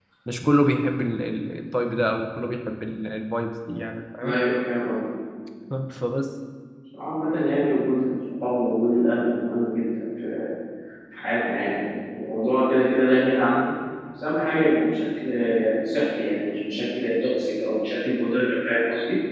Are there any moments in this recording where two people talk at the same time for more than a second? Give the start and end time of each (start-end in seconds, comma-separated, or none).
none